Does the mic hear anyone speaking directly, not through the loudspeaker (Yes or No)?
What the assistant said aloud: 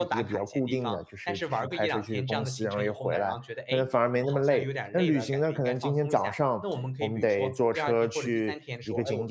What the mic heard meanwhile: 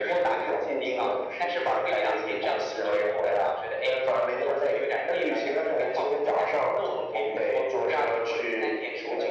No